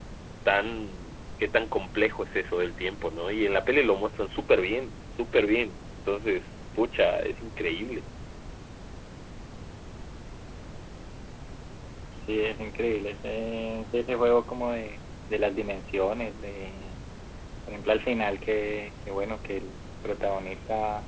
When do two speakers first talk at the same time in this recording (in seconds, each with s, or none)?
none